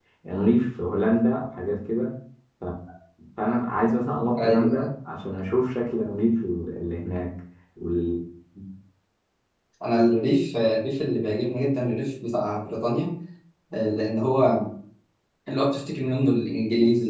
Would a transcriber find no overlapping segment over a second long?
Yes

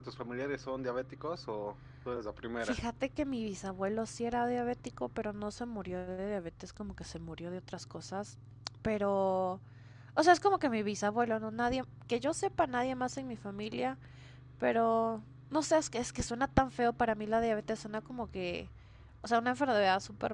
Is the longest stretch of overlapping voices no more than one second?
Yes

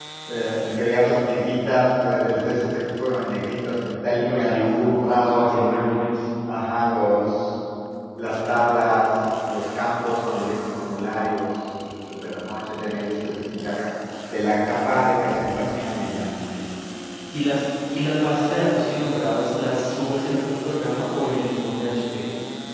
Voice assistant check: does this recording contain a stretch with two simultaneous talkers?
Yes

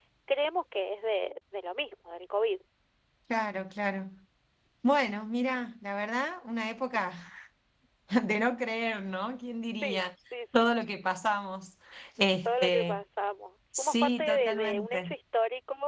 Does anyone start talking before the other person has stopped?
Yes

